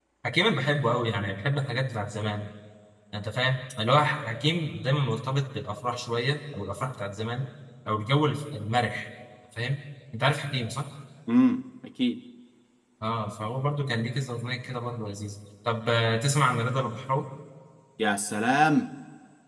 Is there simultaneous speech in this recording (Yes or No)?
No